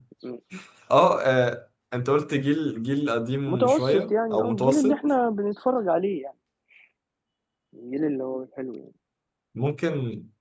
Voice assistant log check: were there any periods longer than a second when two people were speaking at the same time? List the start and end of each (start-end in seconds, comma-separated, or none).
3.5-5.0